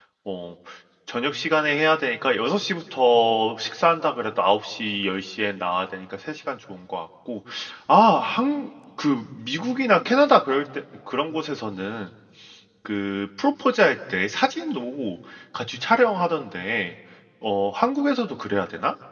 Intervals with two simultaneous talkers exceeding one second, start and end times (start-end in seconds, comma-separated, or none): none